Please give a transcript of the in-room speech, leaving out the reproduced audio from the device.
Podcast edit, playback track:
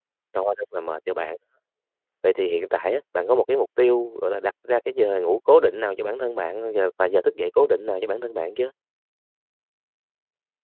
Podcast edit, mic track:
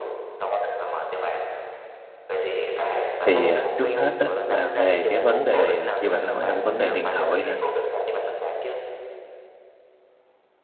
Thì, à, trước hết á là về cái vấn đề, à, như bạn nói là cái vấn đề điện thoại nè,

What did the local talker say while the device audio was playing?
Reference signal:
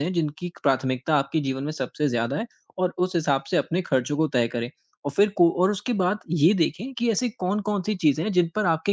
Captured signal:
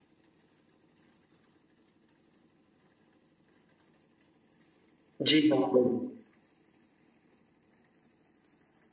जी, हाँ।

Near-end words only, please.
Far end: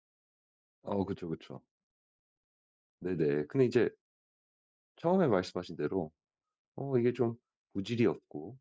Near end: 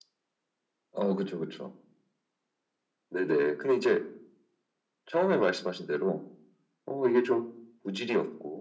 none

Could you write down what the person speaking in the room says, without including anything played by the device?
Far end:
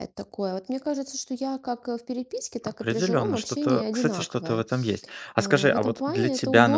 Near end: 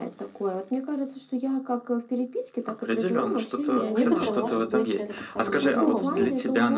И некоторым, может быть, это достаточно сложно.

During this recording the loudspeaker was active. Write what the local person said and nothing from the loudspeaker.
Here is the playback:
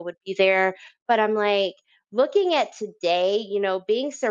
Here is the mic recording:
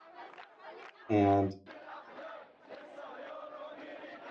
And

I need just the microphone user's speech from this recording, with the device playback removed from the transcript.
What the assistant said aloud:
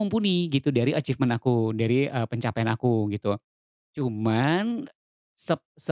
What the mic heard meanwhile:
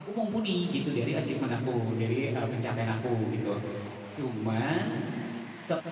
none

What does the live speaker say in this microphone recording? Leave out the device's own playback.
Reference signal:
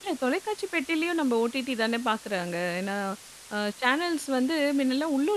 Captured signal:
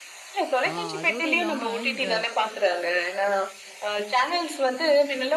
ஆ அதோட இல்லாம இந்த

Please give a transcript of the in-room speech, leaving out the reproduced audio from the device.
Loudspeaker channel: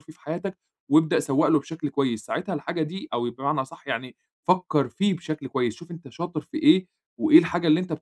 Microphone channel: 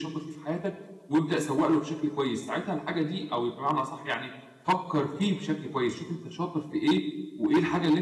none

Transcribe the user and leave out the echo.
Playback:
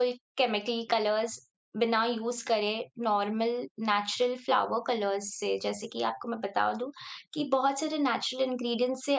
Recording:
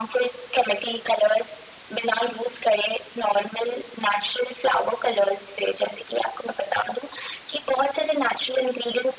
none

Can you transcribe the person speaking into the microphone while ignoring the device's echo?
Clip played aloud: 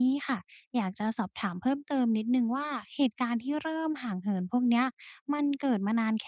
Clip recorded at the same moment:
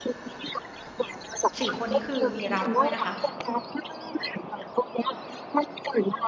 4คนนี้คือมีเราด้วยนะคะ

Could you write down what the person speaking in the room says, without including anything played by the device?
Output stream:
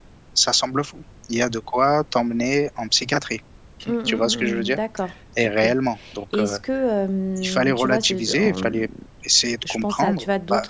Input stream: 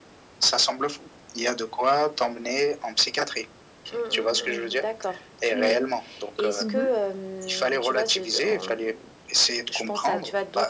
Ouais, ouais. Mmh

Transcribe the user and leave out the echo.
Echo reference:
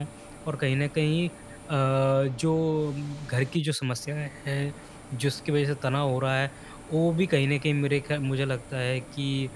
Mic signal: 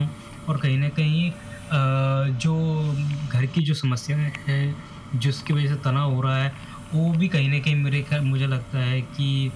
none

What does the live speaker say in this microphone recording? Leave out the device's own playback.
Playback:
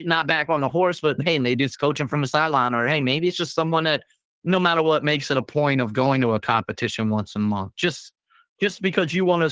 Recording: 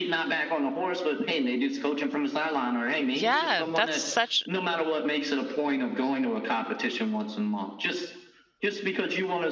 yeah. That's such

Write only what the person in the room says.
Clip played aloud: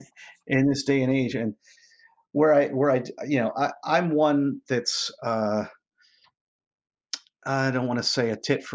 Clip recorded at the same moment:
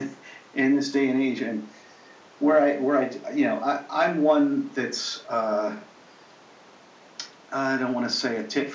none

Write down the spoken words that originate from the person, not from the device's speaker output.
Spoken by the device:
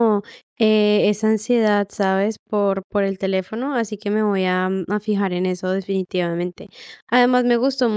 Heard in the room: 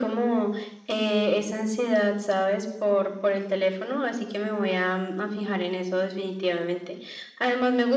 none

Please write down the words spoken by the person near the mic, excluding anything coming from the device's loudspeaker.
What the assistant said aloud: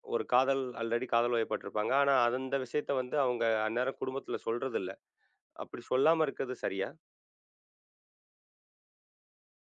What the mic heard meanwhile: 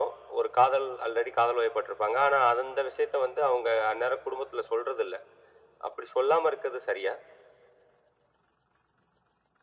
none

